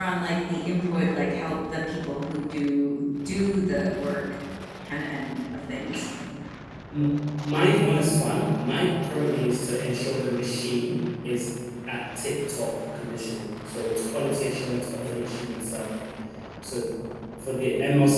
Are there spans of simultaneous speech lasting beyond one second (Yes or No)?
No